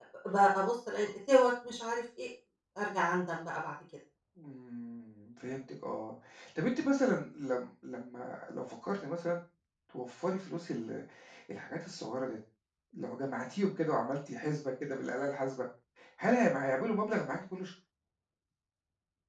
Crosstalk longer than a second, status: none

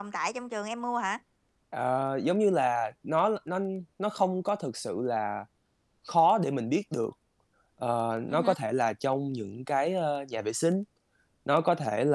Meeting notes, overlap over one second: none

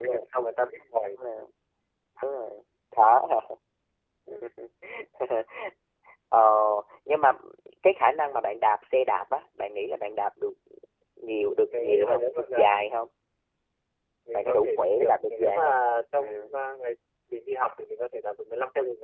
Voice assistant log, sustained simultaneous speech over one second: present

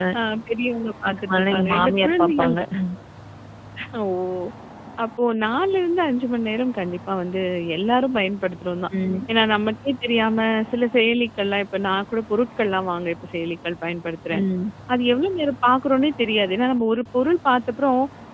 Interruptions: present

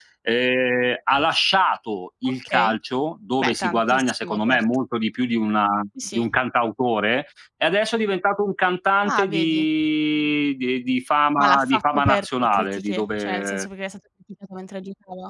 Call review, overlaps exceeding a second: present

